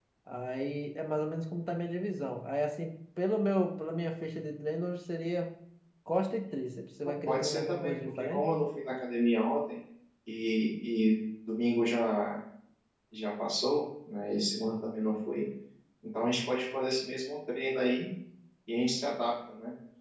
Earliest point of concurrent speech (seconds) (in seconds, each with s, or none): 7.2 s